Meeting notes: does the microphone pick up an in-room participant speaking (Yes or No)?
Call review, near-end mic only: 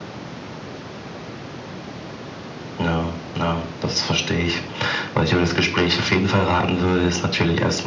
No